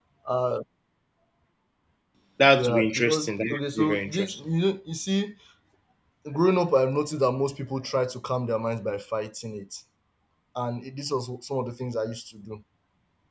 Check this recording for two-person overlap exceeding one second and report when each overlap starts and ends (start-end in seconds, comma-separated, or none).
2.6-4.4